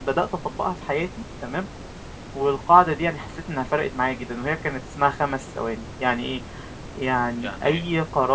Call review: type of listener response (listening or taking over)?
listening